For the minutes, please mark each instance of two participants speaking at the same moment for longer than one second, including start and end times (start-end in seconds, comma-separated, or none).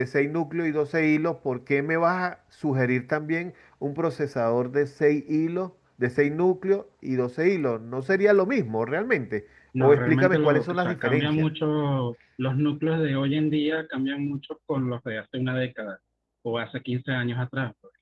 9.8-11.4